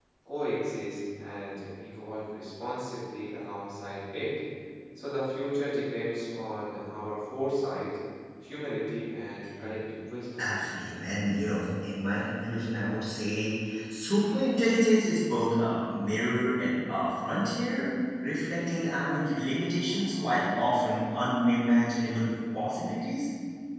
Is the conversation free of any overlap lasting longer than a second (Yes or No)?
Yes